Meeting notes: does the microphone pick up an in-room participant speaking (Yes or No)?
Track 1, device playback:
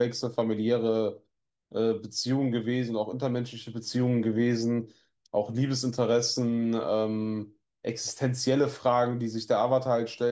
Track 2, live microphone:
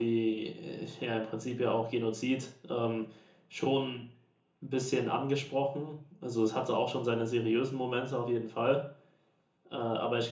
Yes